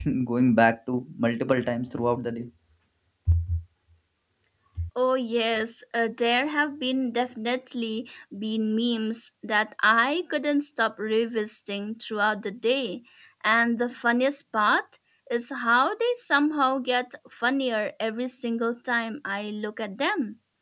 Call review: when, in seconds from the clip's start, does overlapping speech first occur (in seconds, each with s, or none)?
none